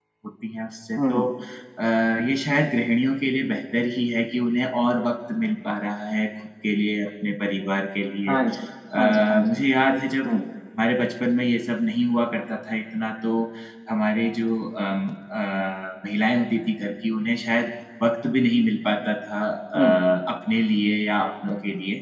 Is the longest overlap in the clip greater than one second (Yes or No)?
No